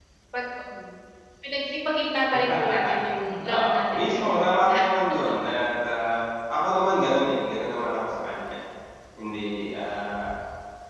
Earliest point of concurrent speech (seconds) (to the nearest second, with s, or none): 3 s